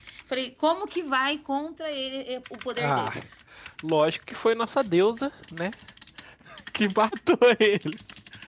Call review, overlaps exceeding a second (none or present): none